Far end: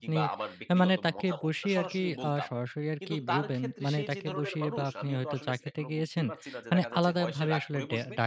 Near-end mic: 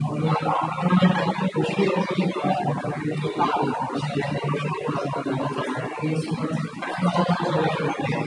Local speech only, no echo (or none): none